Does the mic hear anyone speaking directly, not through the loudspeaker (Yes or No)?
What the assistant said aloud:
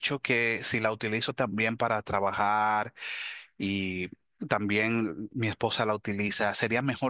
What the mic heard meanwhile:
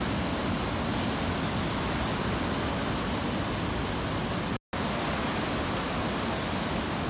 No